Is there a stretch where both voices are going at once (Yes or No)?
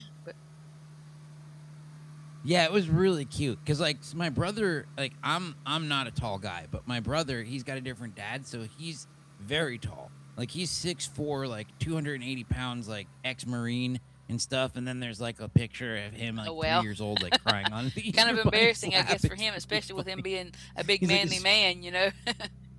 Yes